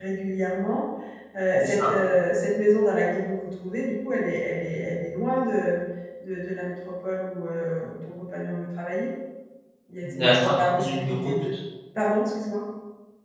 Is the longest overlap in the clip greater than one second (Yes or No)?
Yes